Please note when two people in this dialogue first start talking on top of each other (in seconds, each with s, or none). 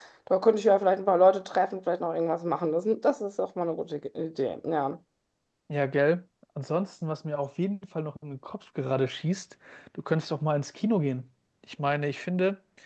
none